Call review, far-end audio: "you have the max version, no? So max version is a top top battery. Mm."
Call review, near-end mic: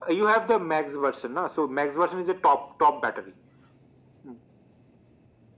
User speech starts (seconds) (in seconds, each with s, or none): none